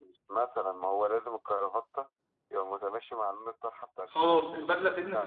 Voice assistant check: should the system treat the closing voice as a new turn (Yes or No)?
Yes